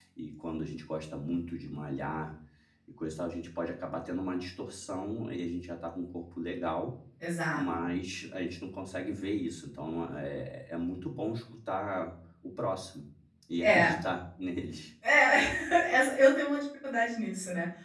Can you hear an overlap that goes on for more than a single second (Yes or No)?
No